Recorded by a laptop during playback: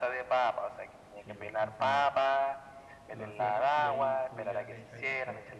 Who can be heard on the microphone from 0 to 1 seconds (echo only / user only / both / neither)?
echo only